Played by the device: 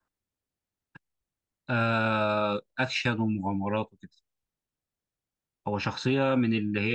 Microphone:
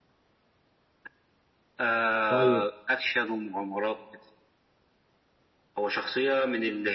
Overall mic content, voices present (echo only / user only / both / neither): both